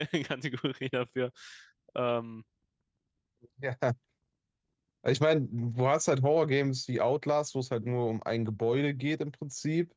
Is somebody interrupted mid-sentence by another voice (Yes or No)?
No